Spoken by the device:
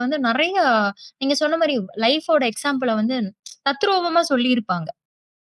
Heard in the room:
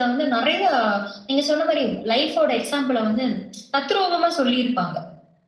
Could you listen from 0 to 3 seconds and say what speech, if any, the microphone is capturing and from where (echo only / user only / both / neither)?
echo only